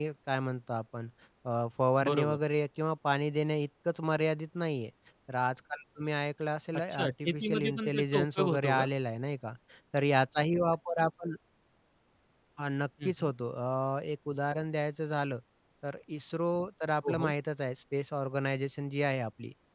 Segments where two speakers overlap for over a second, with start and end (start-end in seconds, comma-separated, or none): 6.7-8.8